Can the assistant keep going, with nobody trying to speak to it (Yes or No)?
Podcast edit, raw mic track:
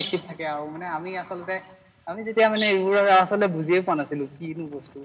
Yes